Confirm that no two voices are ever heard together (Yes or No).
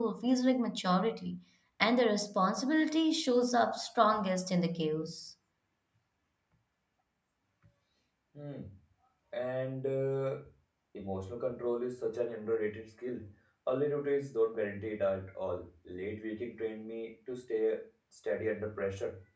Yes